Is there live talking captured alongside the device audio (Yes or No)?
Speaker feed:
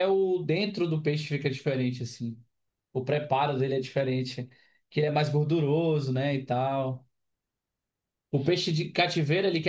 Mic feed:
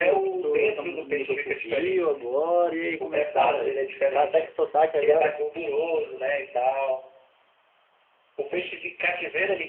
Yes